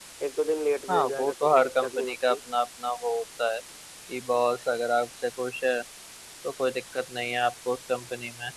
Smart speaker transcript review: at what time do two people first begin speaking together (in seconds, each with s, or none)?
0.9 s